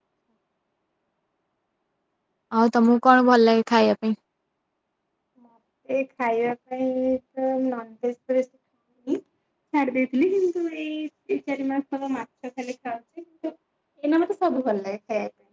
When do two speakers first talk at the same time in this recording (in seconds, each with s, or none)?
none